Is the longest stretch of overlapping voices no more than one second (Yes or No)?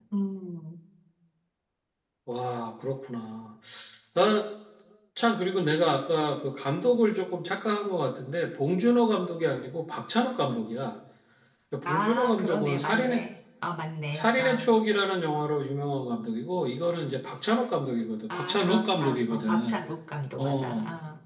No